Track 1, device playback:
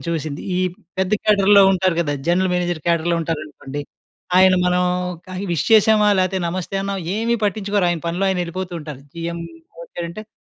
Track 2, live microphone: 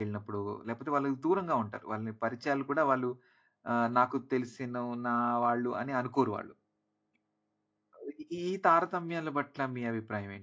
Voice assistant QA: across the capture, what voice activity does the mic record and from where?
user only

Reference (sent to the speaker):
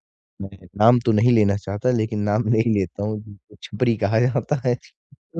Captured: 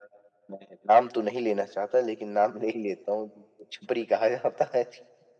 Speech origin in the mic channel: echo only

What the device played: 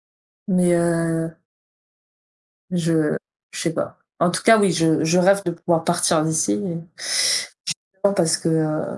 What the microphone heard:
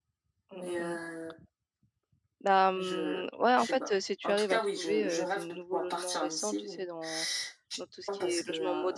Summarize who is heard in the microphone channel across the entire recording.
both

